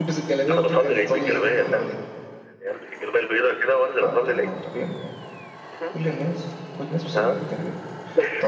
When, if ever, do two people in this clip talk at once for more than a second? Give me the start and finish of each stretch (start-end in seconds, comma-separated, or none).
0.5-1.8